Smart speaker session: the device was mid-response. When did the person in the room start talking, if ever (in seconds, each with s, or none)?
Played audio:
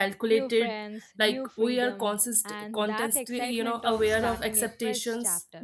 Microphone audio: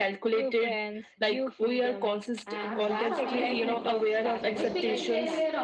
2.5 s